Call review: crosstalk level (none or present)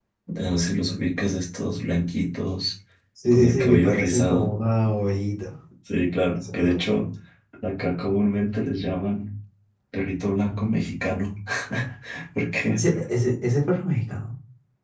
present